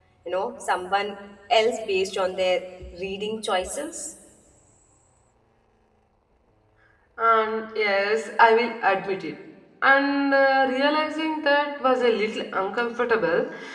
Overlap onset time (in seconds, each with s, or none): none